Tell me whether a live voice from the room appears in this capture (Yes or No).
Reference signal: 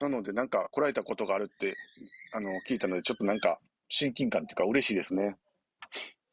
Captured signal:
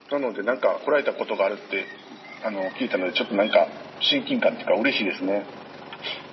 No